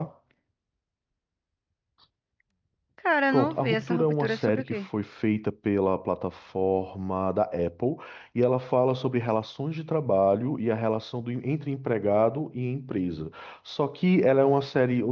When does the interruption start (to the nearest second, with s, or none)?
3 s